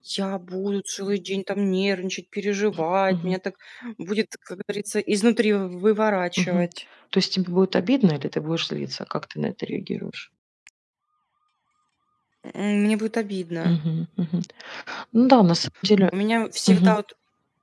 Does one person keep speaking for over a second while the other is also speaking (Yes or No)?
No